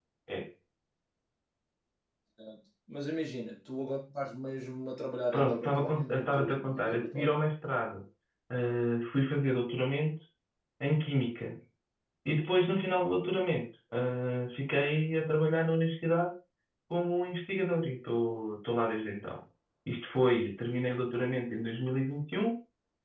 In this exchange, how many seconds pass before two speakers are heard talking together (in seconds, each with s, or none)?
5.3 s